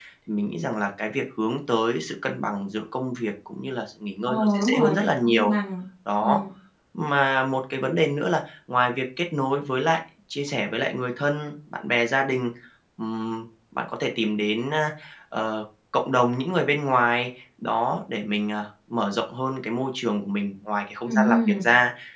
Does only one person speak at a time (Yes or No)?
No